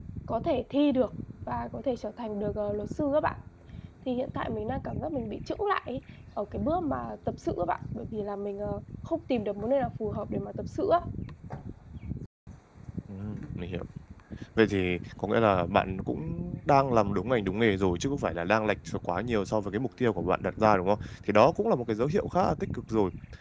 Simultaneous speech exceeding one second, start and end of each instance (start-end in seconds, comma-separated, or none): none